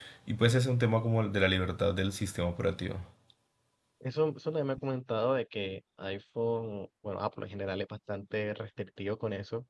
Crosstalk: none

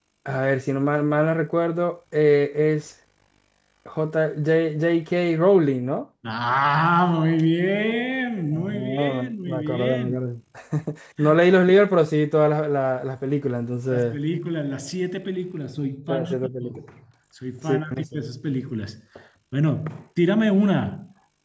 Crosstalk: present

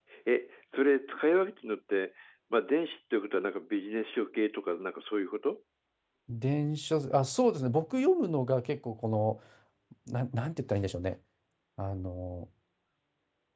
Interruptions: none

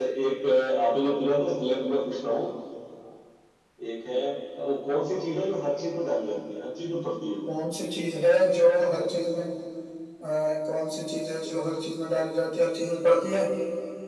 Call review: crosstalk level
none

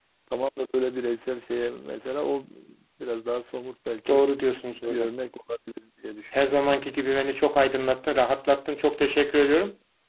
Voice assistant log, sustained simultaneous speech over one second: none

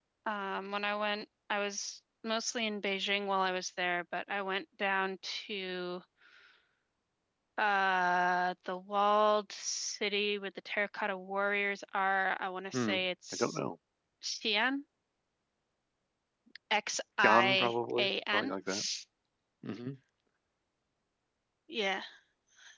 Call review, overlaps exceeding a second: present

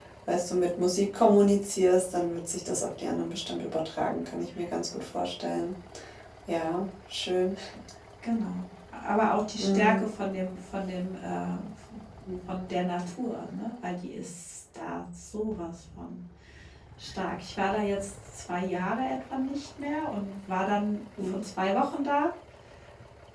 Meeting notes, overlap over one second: none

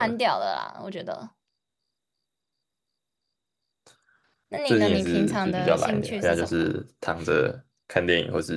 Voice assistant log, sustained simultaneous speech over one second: present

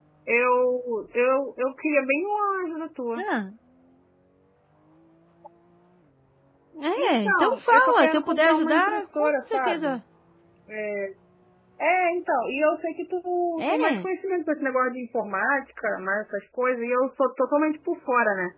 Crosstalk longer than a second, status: present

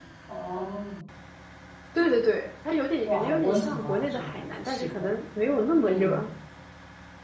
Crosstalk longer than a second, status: present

